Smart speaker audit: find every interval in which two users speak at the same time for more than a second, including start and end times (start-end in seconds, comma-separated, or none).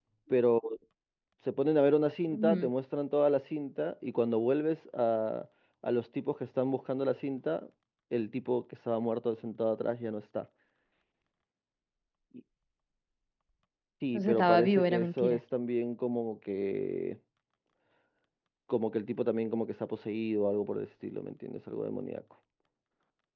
14.1-15.4